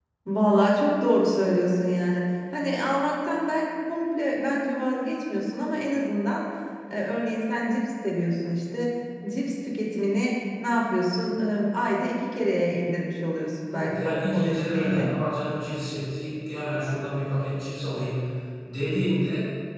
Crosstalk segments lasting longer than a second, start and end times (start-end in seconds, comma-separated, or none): 13.7-15.1